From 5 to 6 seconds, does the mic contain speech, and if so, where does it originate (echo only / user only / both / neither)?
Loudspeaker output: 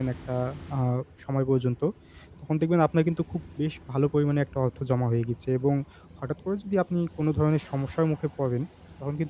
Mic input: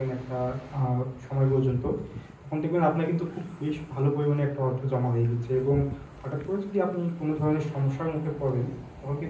echo only